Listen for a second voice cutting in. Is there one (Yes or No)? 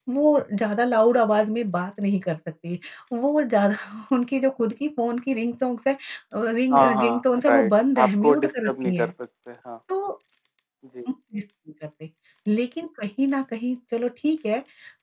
Yes